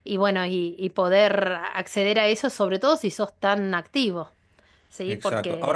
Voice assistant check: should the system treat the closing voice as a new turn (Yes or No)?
Yes